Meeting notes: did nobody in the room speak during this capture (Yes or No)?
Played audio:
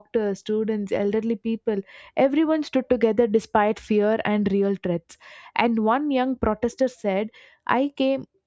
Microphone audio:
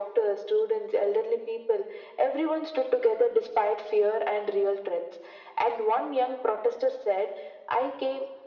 Yes